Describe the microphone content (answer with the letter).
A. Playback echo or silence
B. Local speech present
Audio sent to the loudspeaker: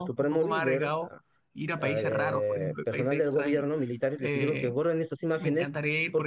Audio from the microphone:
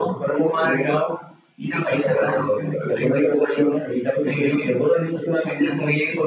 A